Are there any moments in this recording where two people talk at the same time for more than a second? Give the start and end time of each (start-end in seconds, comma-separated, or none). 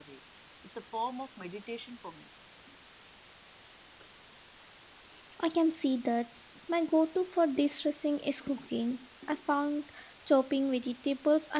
none